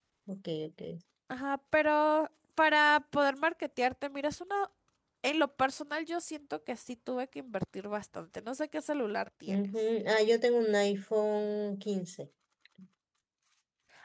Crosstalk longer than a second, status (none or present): none